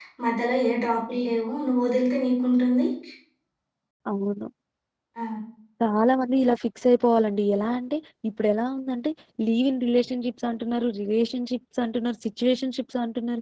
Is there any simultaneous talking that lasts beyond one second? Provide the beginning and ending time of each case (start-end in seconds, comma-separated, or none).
none